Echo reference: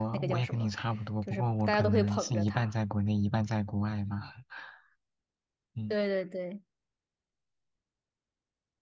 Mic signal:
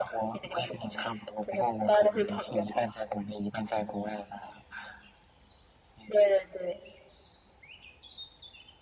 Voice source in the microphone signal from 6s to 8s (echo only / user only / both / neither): echo only